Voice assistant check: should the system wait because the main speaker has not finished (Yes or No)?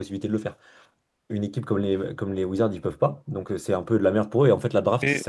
Yes